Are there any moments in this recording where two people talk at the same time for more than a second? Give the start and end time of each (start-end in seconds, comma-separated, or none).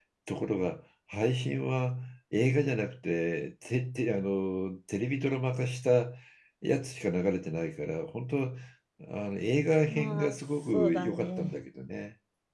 9.9-11.6